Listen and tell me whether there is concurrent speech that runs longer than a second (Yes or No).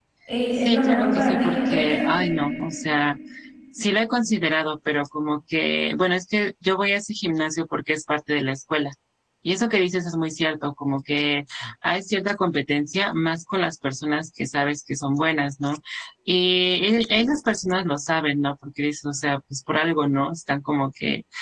Yes